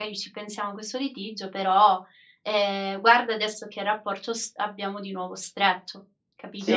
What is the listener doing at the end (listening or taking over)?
taking over